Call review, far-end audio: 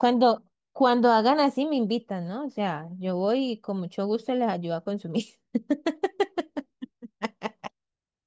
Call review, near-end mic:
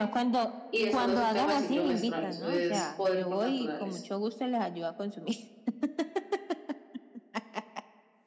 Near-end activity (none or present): present